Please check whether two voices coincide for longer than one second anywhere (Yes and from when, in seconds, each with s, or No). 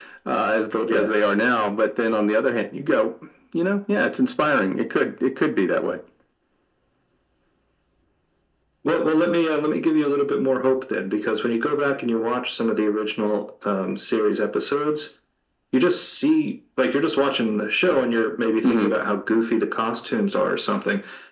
No